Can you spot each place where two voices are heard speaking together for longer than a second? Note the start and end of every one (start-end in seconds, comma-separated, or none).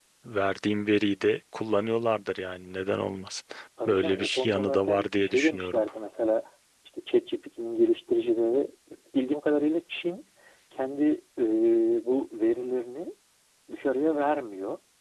3.9-5.8